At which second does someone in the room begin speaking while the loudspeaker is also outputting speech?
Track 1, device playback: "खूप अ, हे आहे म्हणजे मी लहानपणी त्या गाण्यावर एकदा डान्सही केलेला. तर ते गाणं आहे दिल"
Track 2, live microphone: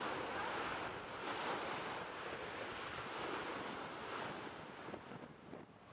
none

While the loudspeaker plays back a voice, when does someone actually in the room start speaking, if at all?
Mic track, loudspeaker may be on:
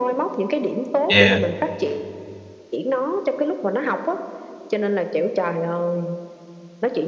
1 s

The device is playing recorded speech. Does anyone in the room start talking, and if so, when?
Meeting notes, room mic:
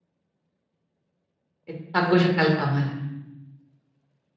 2 s

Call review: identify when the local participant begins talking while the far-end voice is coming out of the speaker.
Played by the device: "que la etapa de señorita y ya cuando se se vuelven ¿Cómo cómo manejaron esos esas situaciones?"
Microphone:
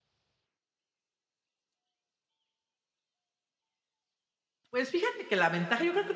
5 s

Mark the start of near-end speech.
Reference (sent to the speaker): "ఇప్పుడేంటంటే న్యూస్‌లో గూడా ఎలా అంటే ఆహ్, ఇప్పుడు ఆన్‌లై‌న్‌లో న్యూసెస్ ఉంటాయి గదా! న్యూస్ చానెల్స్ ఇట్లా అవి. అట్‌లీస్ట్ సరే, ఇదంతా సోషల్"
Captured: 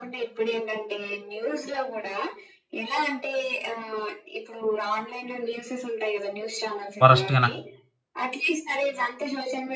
7 s

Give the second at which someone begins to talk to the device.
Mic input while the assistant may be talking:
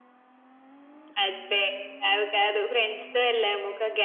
none

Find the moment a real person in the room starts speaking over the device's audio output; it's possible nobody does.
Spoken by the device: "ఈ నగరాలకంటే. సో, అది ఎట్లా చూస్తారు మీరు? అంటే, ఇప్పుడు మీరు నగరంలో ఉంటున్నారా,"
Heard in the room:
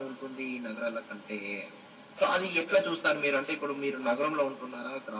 none

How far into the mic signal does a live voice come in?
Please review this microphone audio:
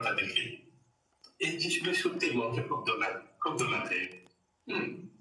none

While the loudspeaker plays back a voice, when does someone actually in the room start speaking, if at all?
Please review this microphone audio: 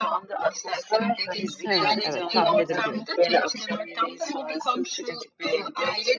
2 s

